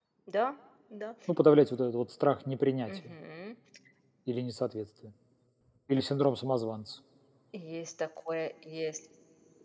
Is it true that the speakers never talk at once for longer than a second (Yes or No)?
Yes